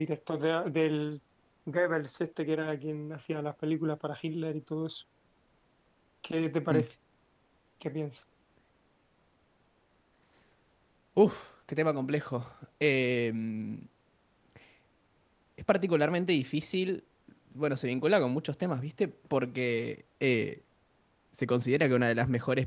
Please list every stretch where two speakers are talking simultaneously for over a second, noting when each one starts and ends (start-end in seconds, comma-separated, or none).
none